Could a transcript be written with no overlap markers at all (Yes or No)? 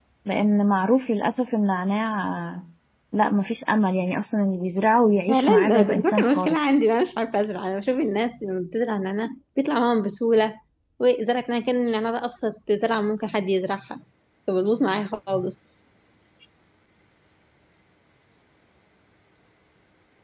No